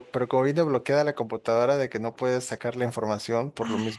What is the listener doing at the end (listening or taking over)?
listening